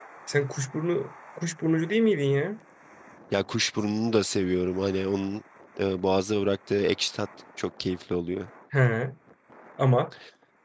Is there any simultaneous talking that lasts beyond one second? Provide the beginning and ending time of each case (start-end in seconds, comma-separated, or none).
none